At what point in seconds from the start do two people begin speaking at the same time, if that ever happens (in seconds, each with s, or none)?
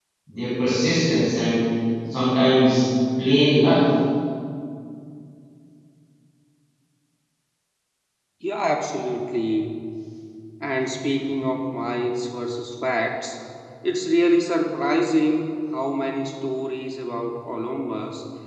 none